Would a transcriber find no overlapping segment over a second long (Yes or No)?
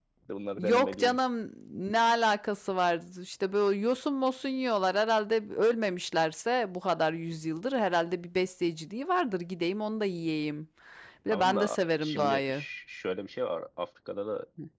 No